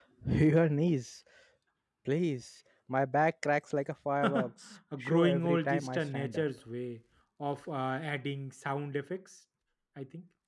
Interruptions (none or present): present